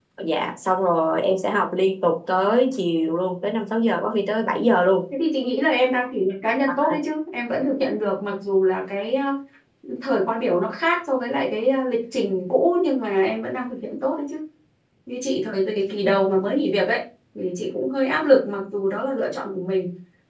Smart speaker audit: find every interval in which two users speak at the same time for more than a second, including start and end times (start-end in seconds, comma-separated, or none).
none